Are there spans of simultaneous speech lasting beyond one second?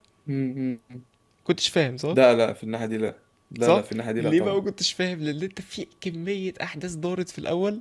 No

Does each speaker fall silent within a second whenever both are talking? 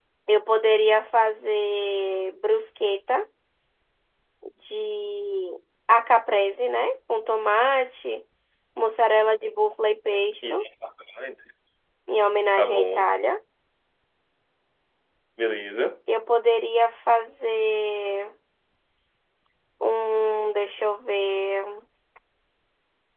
Yes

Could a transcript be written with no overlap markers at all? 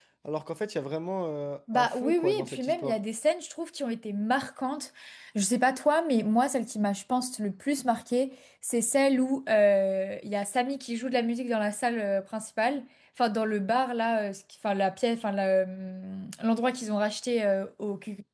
No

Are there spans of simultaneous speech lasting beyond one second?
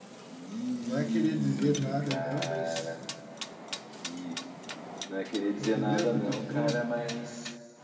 Yes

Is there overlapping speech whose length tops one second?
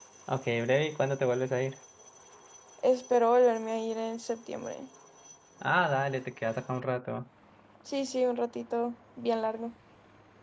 No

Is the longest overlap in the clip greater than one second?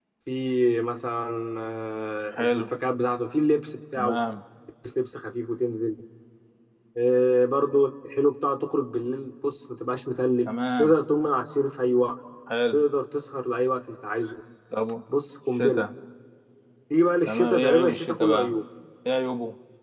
Yes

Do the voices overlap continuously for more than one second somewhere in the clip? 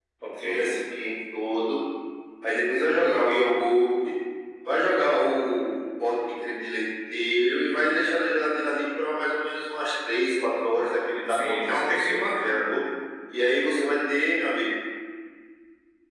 Yes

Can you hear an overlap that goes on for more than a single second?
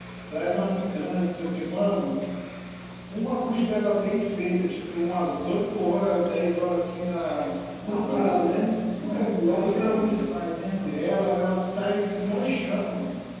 Yes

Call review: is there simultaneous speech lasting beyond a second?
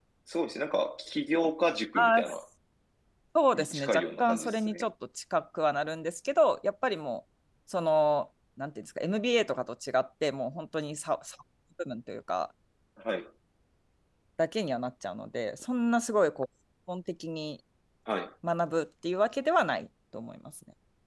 Yes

